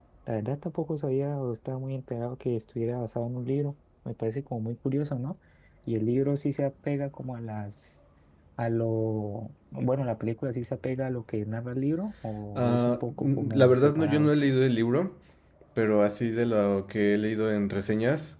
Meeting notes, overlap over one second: present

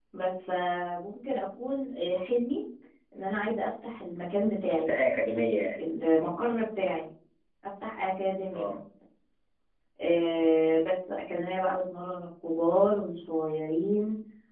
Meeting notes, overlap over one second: none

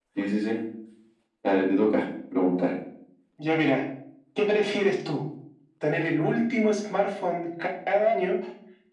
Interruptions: none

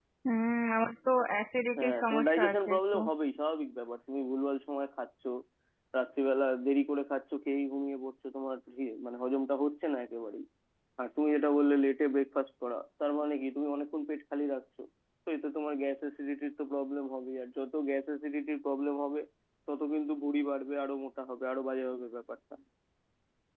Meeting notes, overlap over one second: present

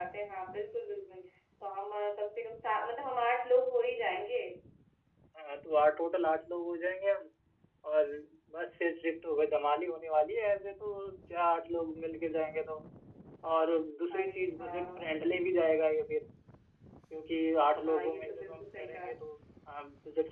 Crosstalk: present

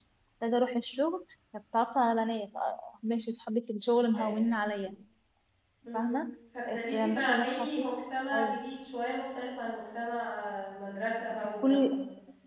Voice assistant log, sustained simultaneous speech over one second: present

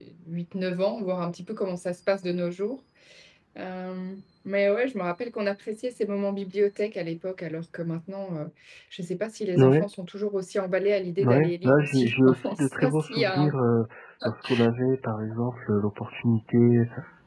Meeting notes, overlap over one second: present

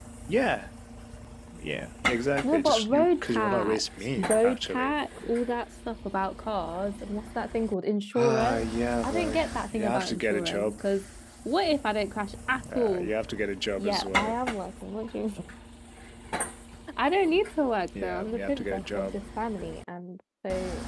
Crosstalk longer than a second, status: present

